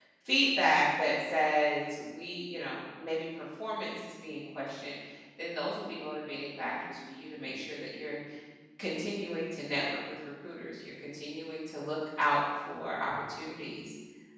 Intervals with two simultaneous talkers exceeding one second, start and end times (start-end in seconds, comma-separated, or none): none